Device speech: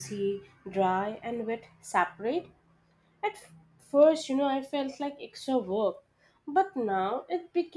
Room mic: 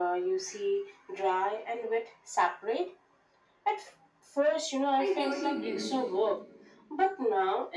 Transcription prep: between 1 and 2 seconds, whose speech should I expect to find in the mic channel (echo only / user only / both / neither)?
echo only